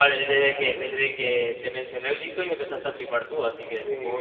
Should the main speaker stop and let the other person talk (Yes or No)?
Yes